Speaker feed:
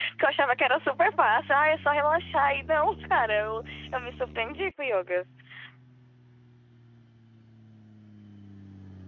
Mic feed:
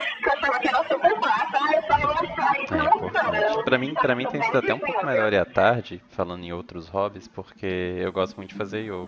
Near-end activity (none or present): present